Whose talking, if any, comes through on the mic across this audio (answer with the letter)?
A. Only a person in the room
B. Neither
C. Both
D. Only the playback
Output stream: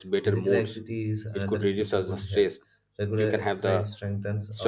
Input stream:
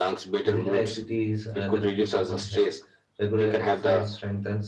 D